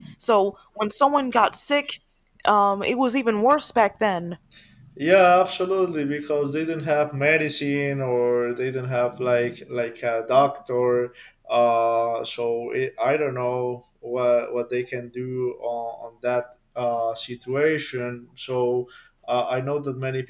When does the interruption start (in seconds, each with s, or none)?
none